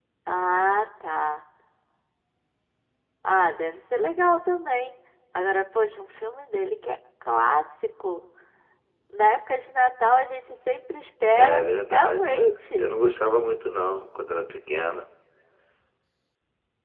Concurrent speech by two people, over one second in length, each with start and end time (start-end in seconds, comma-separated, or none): 11.3-12.9